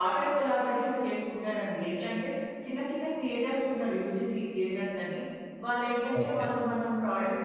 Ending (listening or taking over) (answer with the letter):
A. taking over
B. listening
B